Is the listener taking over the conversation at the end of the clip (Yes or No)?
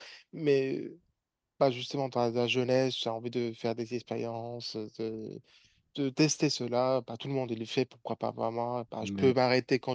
No